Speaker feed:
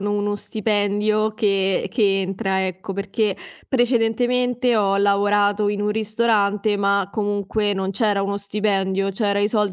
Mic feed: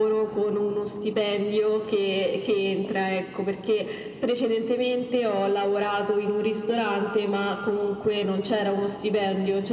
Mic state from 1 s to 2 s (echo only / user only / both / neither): echo only